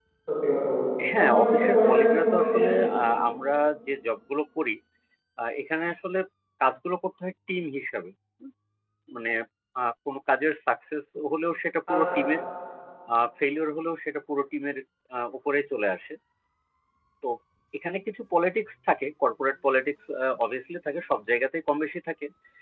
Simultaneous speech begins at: 1.2 s

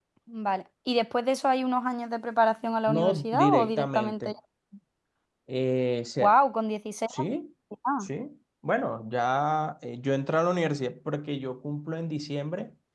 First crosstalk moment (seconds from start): 2.9 s

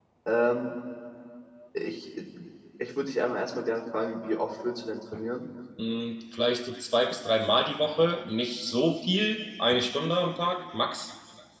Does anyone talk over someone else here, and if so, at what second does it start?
none

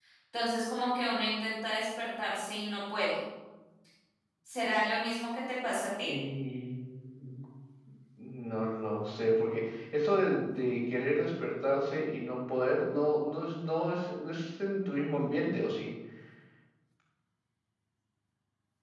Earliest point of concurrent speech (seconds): none

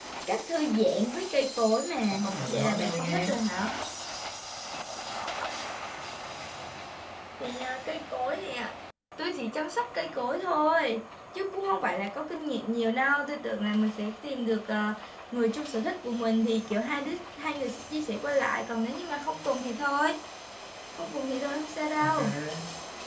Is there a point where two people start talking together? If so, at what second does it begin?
2.1 s

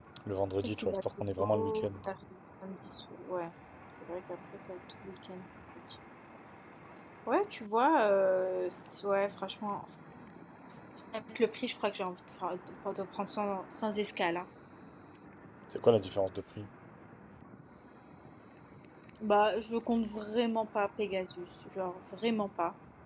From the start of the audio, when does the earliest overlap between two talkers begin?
0.6 s

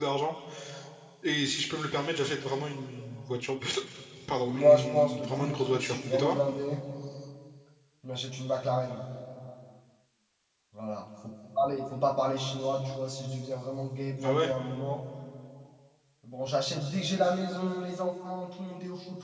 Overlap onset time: 4.4 s

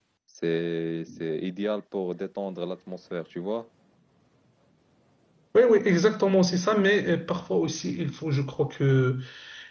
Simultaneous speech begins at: none

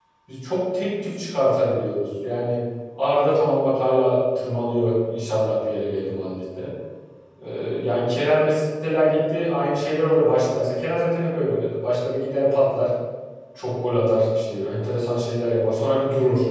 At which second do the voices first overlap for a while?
none

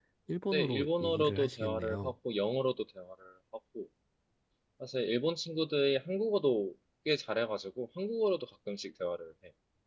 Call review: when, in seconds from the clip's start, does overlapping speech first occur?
0.5 s

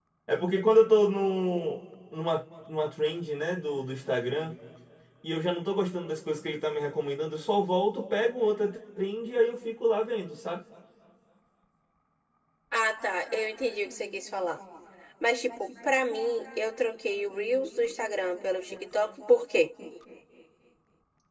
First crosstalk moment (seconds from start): none

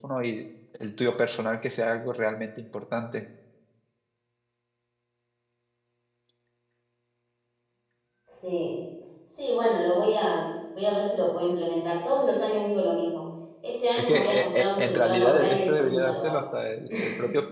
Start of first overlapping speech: 14.0 s

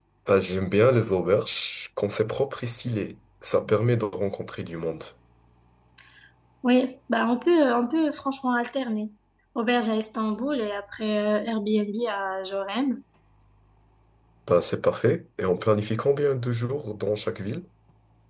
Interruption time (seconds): none

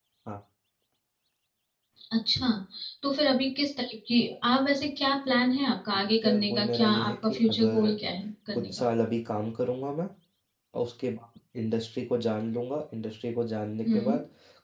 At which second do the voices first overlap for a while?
5.9 s

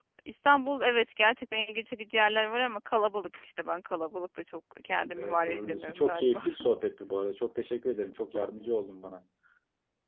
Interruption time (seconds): 5.1 s

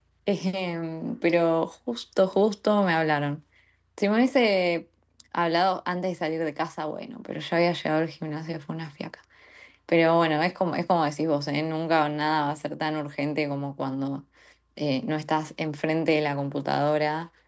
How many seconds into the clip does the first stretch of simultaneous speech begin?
none

